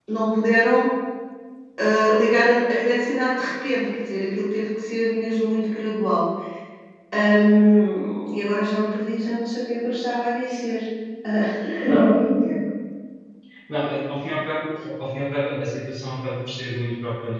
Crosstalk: none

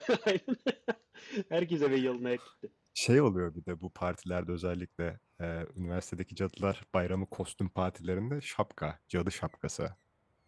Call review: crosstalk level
none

